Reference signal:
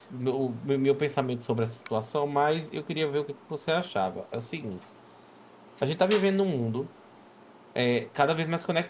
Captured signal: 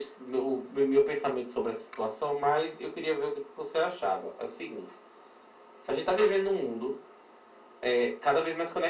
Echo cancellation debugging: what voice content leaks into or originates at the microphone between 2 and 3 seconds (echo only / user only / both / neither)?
echo only